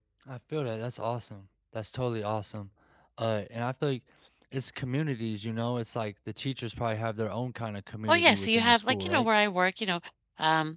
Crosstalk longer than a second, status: present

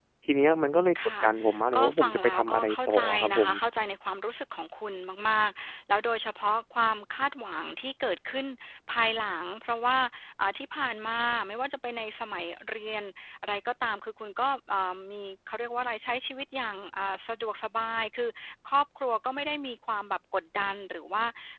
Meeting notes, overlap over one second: present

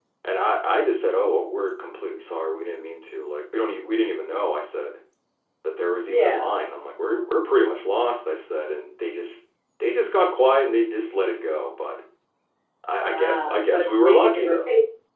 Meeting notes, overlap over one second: present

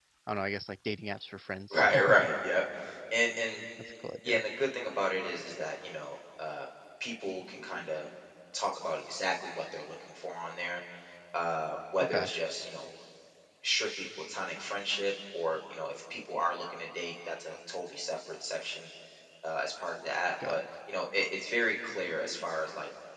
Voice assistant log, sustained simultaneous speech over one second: none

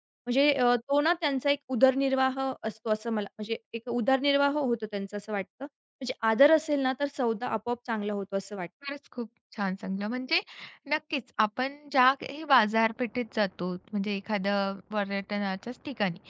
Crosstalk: none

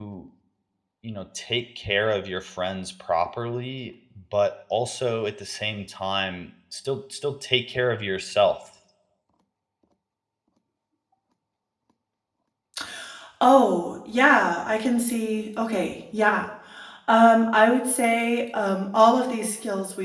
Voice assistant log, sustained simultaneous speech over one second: none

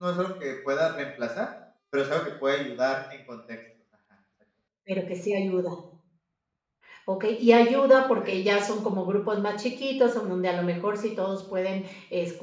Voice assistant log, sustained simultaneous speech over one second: none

